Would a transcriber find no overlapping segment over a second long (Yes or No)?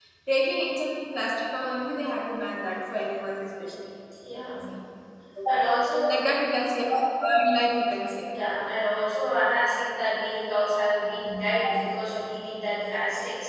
Yes